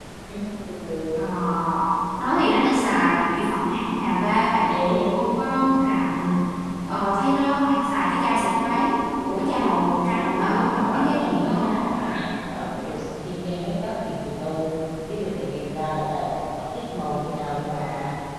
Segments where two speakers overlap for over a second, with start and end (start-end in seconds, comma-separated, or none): 10.2-11.8